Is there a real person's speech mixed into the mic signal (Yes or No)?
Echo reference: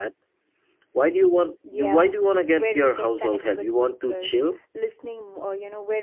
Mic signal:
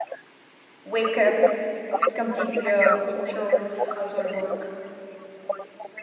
Yes